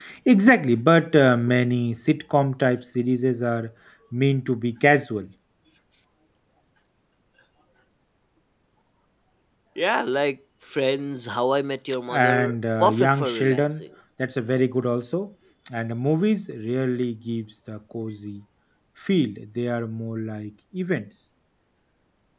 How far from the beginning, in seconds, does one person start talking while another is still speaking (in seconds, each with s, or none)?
12.1 s